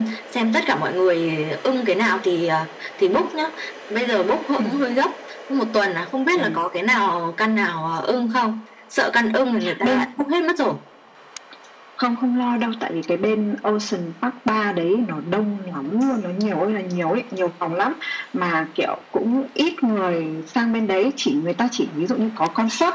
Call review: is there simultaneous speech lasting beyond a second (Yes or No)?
No